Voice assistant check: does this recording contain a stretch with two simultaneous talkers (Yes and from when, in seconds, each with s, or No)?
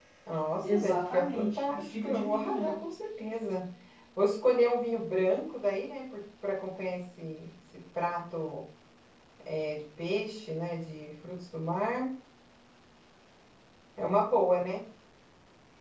Yes, from 0.7 s